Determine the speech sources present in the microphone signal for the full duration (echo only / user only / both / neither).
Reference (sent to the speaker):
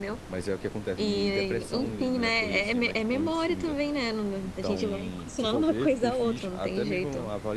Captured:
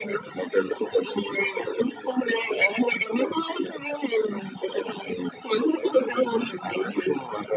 echo only